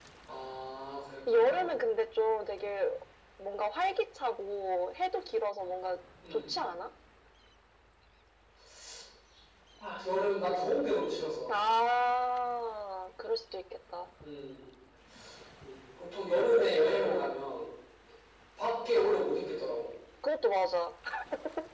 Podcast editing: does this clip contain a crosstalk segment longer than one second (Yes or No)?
No